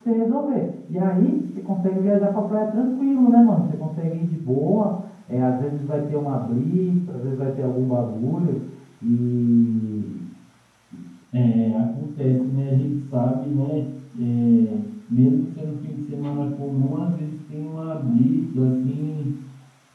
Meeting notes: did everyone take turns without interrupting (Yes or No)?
Yes